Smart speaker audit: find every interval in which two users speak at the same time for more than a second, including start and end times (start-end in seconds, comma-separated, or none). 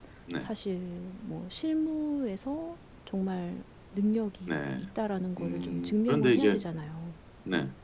5.4-6.6